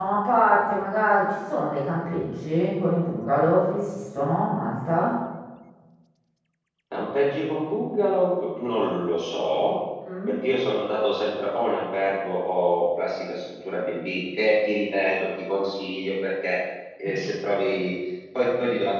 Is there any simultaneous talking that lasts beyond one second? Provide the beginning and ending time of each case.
none

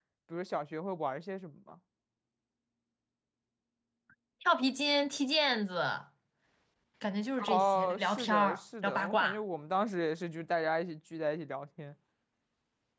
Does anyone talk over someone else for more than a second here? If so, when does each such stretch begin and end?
7.5-9.4

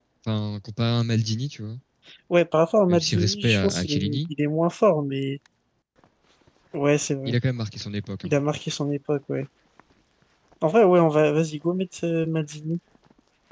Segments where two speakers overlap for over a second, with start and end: 2.9-4.2

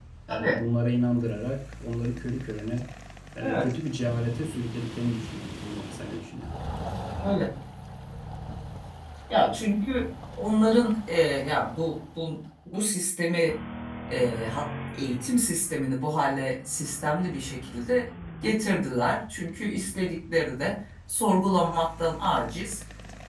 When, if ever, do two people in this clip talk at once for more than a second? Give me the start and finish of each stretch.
none

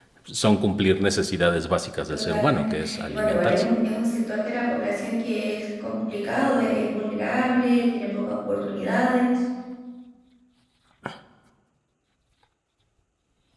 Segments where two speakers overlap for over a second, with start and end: 2.1-3.7

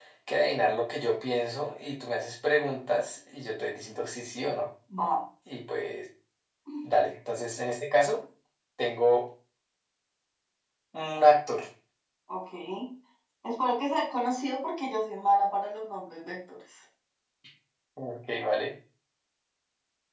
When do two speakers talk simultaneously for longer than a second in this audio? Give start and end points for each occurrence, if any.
none

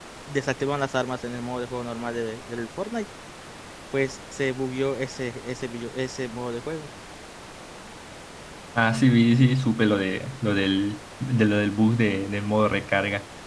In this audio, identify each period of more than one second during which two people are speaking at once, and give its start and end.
none

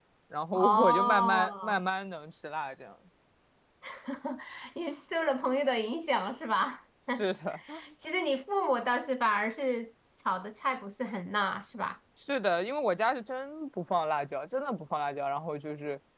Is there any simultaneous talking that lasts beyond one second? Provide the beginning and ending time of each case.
0.5-1.8

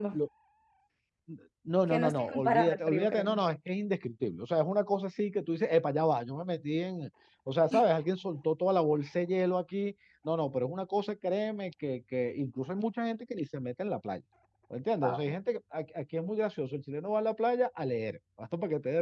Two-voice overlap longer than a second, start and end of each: 1.9-3.4

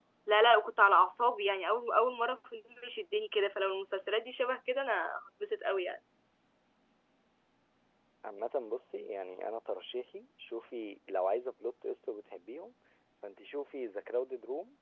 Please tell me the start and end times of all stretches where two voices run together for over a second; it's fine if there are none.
none

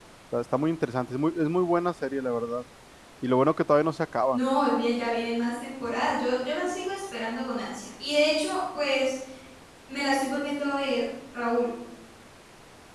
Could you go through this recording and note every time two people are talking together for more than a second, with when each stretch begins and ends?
none

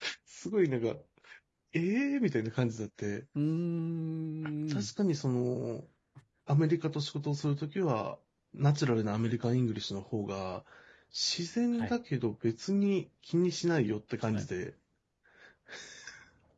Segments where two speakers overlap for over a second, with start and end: none

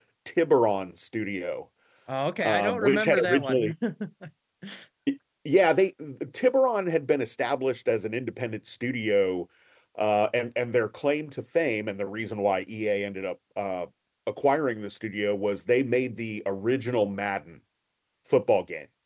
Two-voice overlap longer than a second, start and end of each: 2.4-3.7

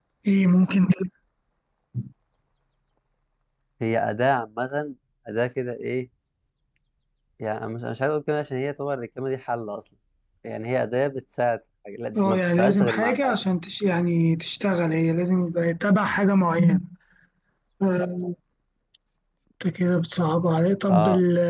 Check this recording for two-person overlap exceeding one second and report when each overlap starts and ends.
12.2-13.4

